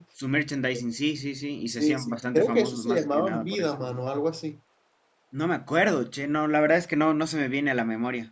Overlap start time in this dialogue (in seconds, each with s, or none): 1.7 s